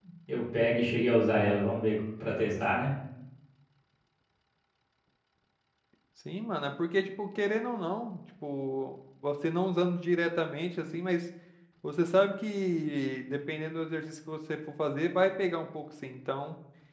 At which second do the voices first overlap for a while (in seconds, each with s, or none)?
none